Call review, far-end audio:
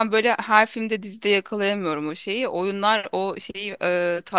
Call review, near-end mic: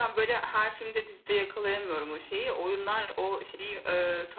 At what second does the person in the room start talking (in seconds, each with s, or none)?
none